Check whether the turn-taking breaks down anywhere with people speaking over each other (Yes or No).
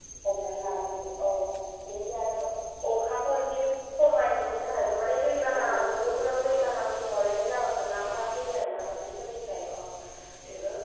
Yes